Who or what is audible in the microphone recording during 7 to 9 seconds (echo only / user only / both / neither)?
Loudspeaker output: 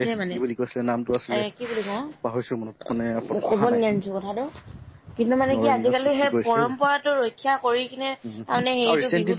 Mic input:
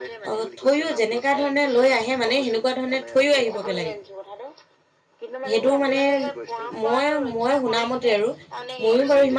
both